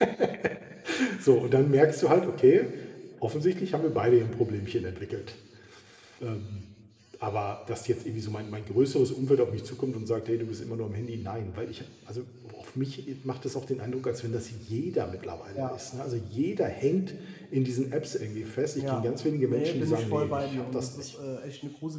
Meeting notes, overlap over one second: present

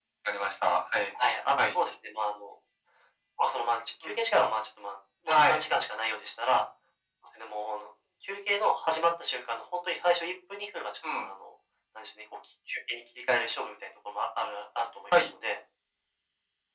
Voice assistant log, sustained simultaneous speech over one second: none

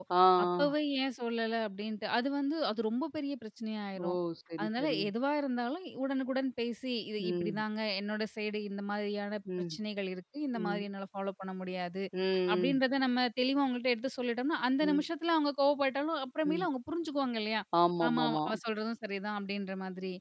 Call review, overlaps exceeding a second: none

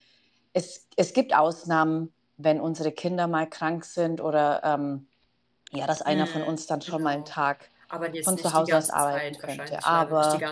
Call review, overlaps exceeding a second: present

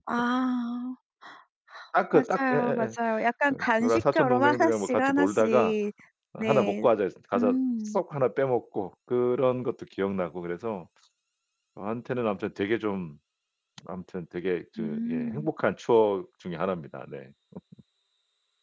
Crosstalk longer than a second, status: present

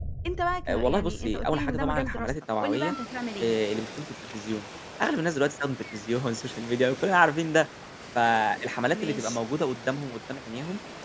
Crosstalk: present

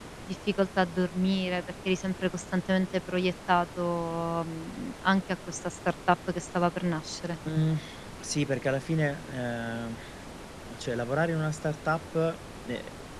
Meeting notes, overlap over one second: none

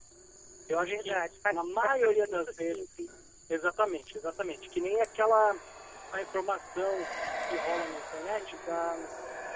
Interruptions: present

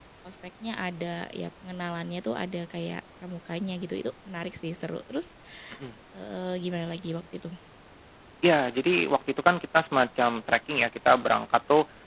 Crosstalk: none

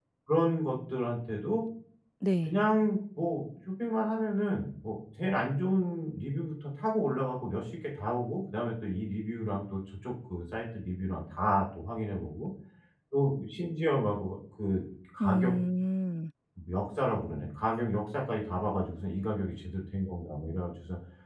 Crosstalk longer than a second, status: none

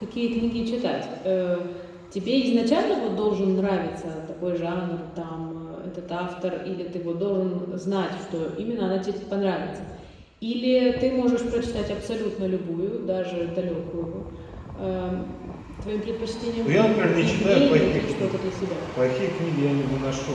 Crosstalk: present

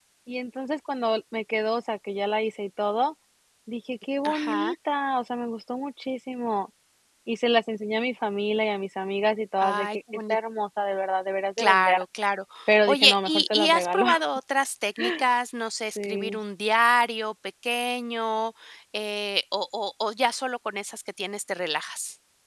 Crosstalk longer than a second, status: present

